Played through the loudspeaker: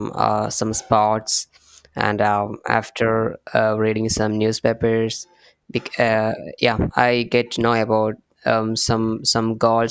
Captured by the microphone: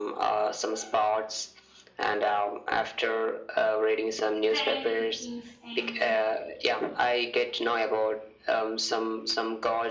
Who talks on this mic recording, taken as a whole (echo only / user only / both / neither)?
both